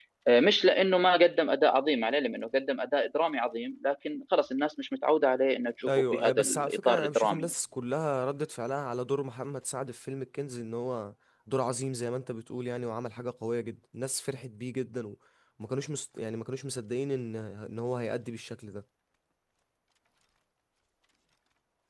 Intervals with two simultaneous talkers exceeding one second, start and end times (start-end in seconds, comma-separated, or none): 5.8-7.5